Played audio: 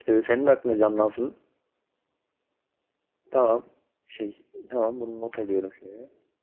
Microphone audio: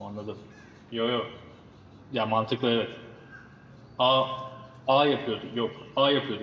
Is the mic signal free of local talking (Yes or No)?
No